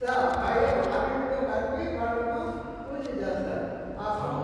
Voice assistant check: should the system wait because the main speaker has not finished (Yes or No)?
No